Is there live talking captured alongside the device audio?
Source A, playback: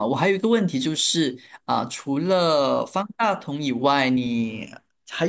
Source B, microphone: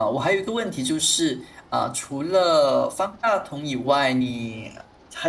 No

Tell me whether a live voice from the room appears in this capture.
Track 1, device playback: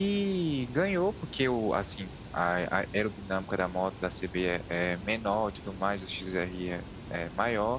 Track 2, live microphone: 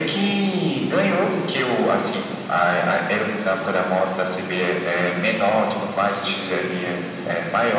No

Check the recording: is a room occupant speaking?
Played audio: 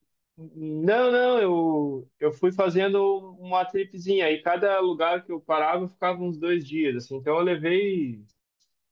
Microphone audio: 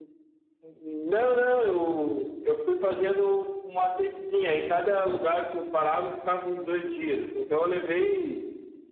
No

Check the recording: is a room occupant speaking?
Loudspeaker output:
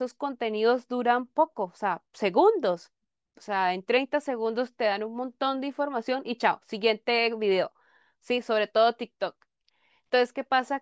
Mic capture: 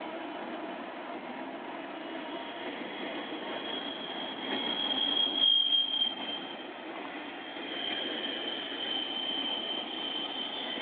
No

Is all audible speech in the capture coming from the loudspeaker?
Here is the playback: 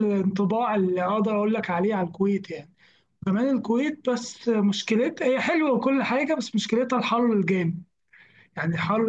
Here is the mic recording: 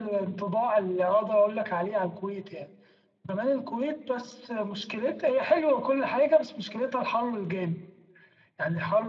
Yes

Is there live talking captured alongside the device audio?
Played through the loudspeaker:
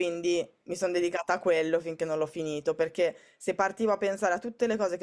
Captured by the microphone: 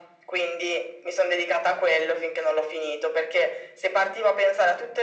No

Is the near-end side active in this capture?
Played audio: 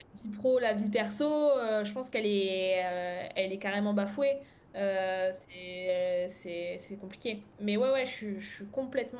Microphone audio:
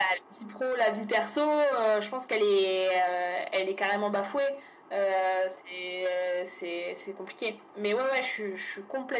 No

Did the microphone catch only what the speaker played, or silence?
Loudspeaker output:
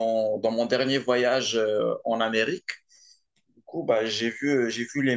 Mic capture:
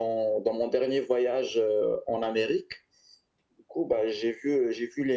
Yes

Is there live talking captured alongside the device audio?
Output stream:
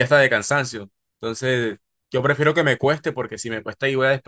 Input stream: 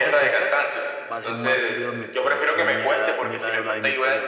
Yes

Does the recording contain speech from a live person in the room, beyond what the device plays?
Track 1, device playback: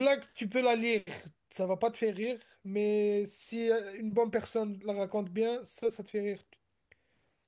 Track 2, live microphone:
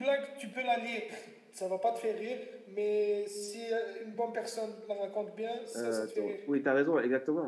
Yes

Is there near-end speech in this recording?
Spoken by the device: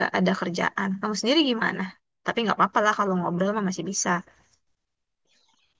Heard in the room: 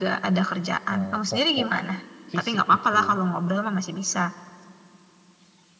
Yes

